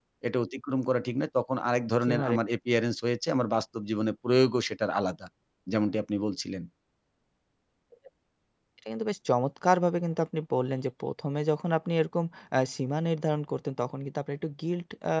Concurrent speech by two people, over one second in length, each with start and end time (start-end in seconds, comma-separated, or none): none